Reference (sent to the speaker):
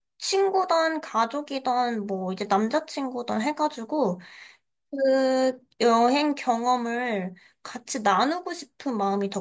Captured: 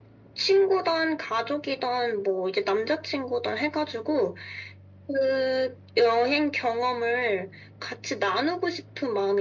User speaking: No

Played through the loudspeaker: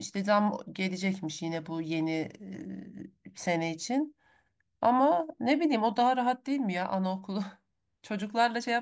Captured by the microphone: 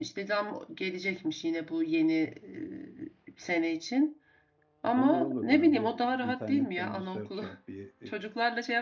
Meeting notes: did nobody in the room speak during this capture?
No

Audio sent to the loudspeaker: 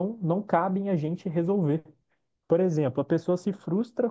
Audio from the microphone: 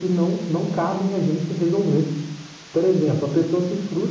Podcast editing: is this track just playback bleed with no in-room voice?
Yes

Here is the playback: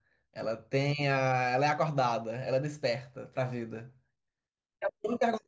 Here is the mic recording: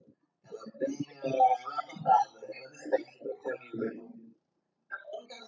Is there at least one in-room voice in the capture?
No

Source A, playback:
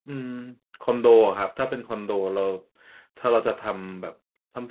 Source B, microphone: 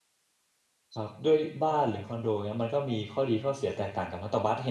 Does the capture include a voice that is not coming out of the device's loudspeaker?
Yes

